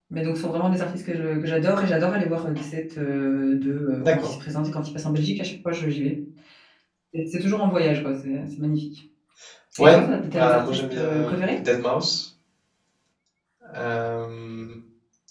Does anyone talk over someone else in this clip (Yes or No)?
Yes